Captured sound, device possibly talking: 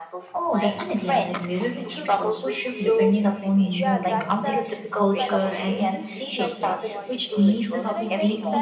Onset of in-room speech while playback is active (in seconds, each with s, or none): 0.3 s